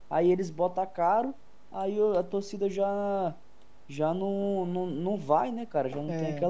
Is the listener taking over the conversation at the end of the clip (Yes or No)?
Yes